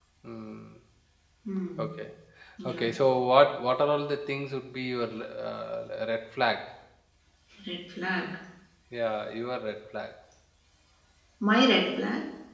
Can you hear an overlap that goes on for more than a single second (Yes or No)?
No